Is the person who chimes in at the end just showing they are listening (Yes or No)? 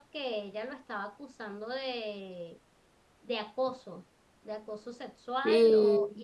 Yes